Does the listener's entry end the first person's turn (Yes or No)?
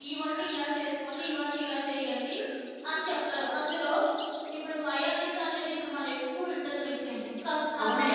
Yes